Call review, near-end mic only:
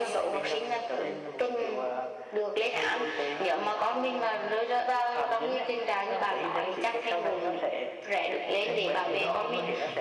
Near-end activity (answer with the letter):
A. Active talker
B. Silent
A